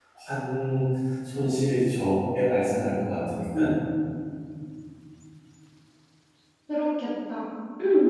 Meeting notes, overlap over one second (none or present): none